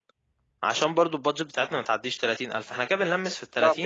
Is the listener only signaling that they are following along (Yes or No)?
No